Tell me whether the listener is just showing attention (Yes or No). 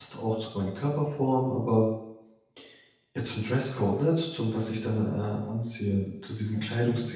Yes